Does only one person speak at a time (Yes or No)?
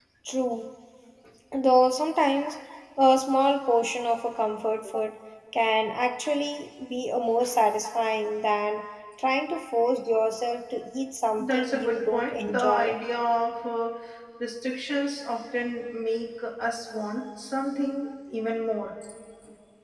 No